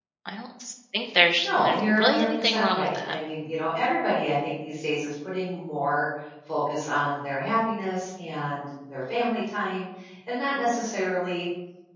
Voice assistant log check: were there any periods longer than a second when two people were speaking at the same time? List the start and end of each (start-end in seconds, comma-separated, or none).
1.4-3.1